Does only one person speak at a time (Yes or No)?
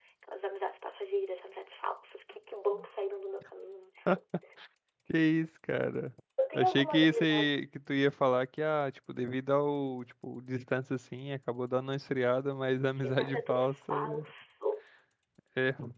No